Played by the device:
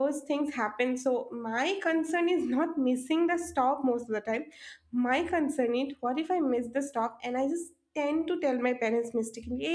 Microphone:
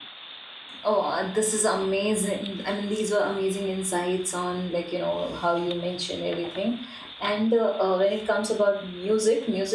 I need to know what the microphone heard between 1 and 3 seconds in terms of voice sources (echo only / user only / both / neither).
user only